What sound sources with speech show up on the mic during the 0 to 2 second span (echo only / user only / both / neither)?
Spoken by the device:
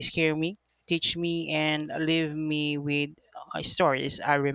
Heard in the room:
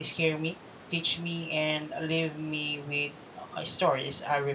echo only